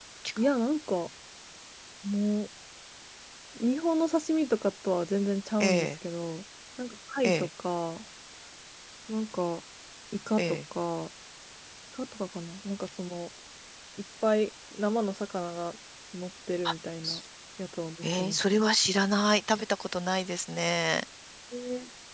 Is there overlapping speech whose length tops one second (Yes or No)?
No